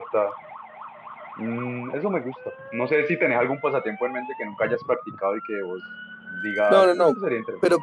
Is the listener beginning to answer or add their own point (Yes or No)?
Yes